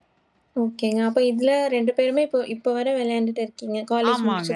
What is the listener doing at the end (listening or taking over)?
taking over